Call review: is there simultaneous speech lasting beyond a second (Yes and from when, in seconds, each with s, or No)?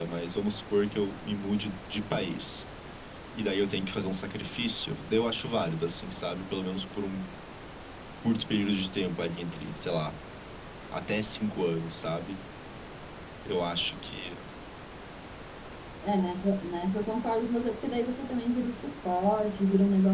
No